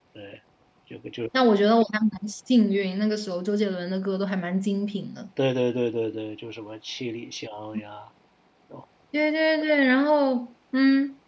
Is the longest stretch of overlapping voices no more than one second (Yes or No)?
Yes